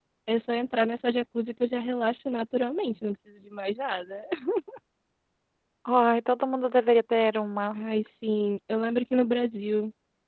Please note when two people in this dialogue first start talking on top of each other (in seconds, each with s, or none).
none